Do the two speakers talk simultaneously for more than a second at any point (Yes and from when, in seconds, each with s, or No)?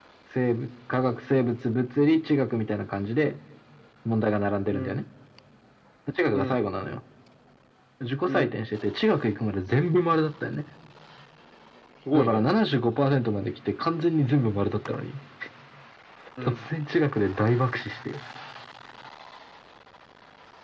No